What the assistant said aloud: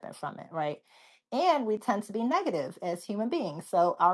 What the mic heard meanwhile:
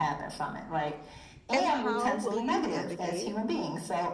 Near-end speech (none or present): present